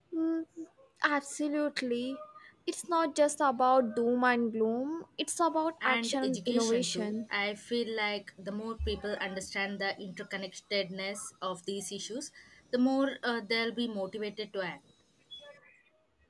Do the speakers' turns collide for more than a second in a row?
Yes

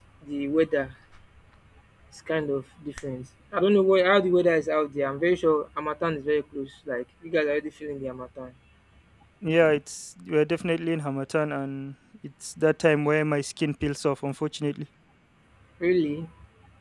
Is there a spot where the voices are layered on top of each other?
No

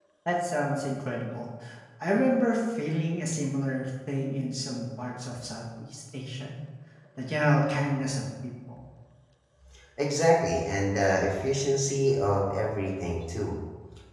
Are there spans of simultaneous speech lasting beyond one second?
No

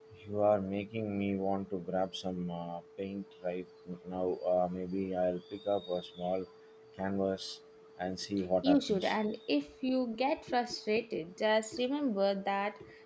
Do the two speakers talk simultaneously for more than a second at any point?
No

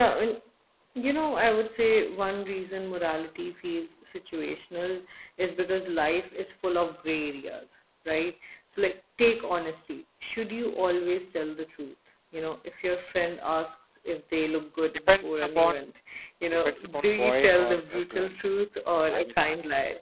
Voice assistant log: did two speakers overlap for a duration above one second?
Yes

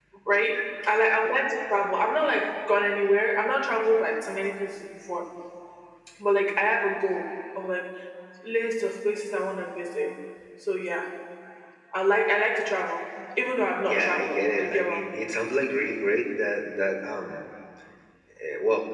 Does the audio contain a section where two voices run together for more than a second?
Yes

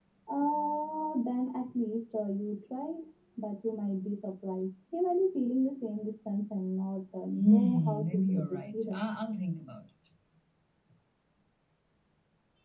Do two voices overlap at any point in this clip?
Yes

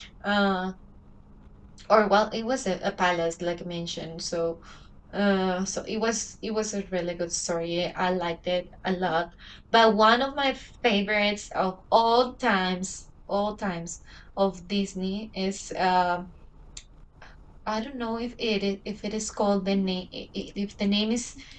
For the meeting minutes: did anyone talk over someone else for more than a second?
No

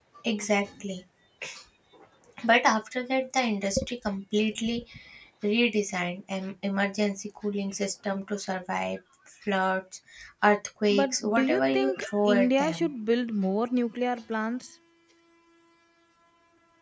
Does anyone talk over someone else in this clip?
Yes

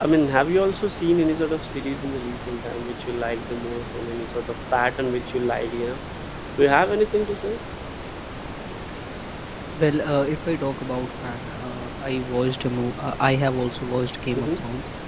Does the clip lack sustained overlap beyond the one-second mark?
Yes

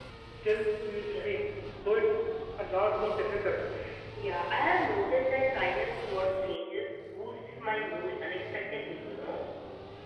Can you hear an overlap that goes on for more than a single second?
No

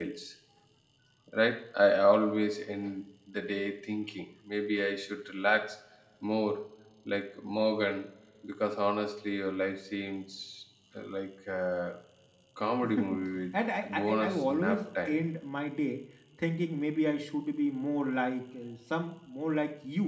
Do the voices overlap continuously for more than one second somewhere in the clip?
Yes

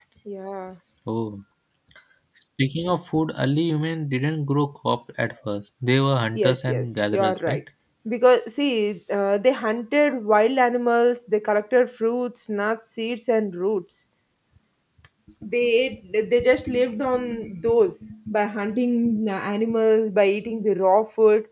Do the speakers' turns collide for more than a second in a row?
Yes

